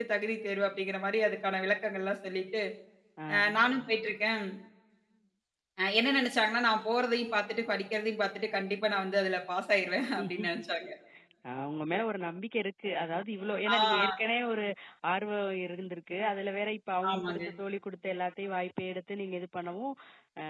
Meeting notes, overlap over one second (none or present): none